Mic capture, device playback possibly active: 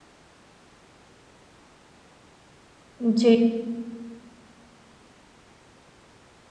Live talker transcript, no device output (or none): जी,